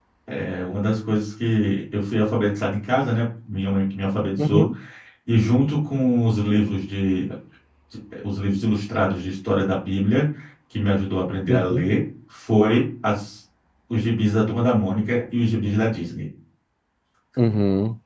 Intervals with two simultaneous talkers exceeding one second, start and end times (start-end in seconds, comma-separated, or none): none